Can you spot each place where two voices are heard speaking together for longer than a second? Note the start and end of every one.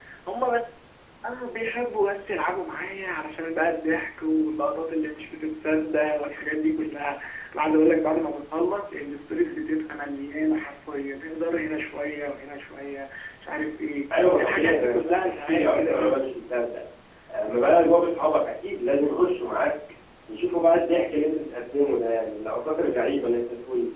14.2-16.2

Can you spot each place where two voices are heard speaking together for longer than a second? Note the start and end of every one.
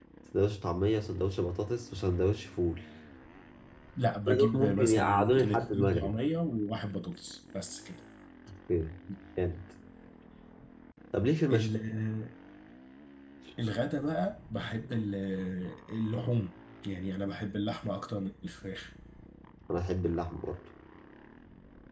4.3-6.1

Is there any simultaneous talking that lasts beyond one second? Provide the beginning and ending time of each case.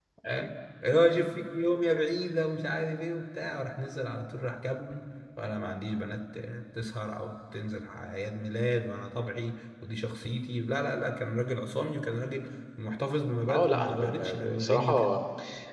13.5-15.2

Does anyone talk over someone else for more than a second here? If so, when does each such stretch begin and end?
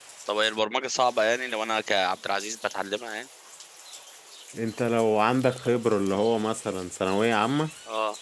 none

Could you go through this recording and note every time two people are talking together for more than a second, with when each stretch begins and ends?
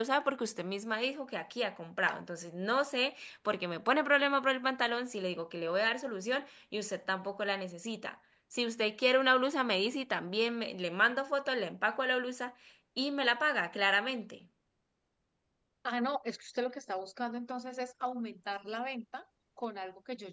none

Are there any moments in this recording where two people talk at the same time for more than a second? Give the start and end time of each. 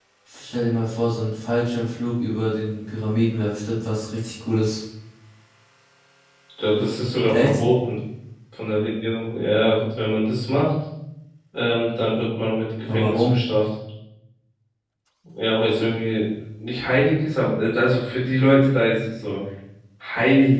none

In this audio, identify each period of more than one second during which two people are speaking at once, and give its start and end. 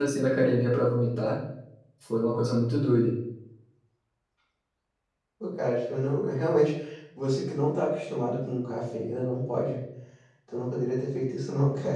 none

